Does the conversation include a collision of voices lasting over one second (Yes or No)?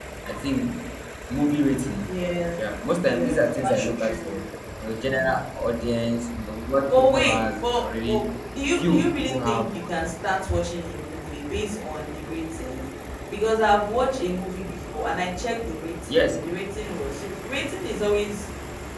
Yes